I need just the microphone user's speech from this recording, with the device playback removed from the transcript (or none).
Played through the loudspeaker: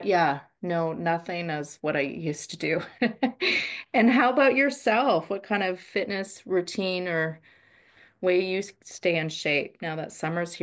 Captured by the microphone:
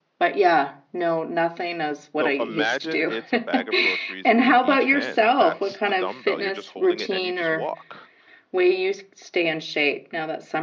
so imagine it's a bag of groceries in each hand. That's the dumbbell. You're just holding it and you just walk.